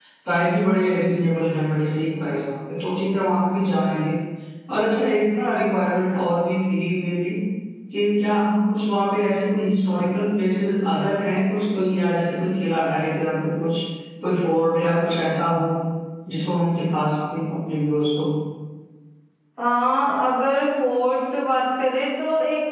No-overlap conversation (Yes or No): Yes